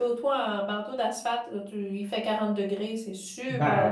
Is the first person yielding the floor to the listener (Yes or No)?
Yes